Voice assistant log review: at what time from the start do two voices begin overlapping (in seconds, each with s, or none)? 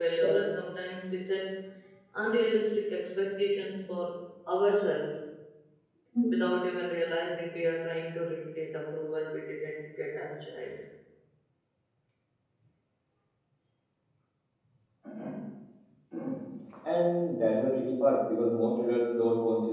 none